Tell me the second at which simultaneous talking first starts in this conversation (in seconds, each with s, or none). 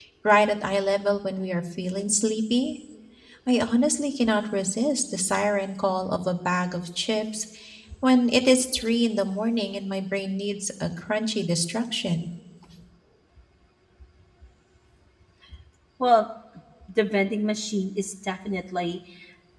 none